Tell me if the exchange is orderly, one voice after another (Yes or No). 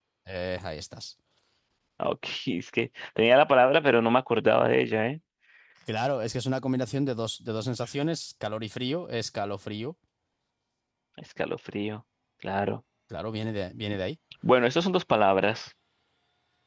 Yes